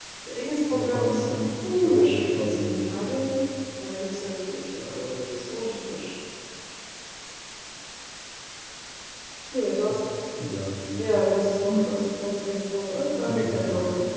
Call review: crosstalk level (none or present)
present